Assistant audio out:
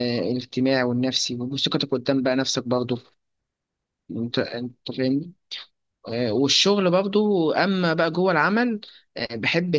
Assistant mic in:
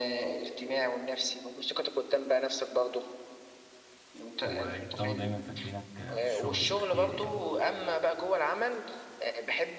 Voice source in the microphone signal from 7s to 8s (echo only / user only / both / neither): both